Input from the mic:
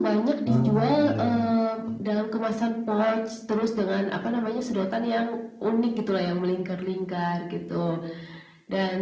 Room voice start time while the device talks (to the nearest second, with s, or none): 0 s